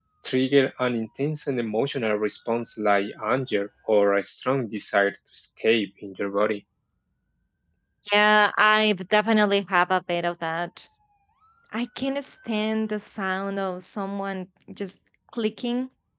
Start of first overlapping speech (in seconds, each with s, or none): none